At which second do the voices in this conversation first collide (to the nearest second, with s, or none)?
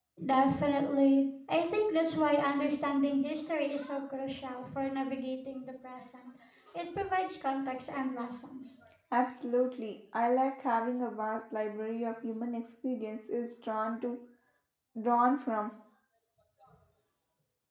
none